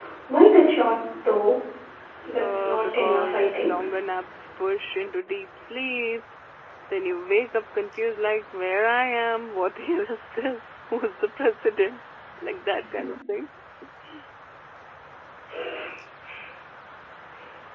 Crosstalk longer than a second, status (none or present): present